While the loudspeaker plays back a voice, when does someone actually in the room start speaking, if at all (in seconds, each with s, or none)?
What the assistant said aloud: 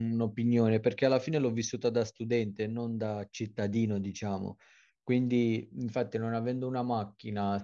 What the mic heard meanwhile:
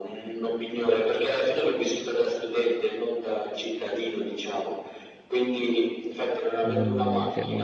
6.6 s